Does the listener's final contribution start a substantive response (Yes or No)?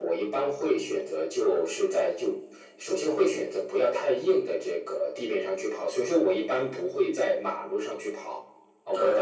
Yes